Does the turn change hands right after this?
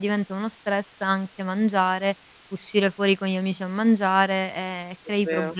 No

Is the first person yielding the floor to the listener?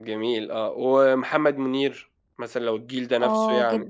Yes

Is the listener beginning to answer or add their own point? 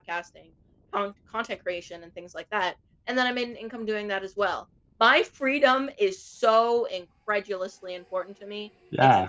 Yes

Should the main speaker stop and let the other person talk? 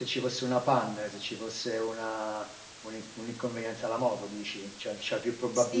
Yes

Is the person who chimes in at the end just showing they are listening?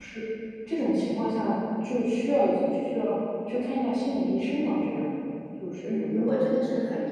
No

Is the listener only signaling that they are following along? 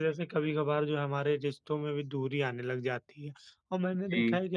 Yes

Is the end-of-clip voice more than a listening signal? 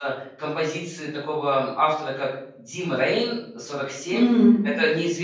No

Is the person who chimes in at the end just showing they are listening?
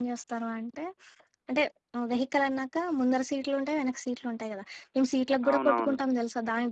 Yes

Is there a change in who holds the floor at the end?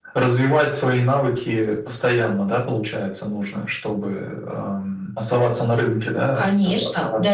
Yes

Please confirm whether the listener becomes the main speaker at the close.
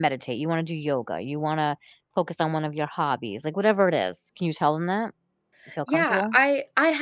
Yes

